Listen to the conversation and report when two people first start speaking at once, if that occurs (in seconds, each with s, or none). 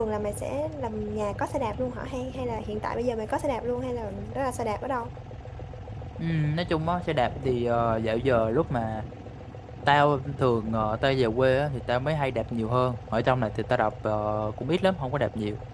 none